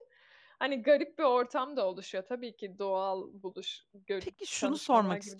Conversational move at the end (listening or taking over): taking over